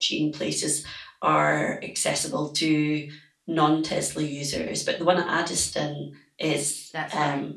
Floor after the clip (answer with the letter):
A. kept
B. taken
A